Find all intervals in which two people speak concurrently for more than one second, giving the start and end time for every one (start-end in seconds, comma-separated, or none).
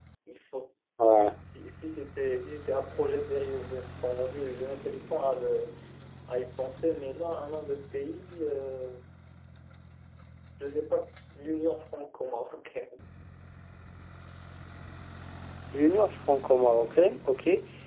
none